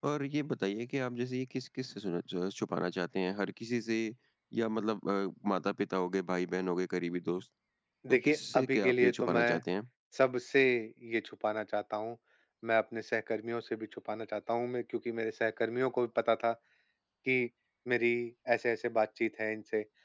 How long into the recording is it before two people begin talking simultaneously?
8.1 s

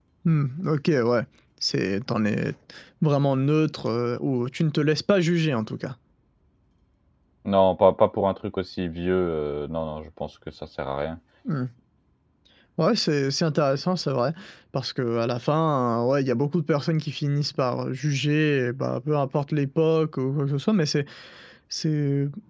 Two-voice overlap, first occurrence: none

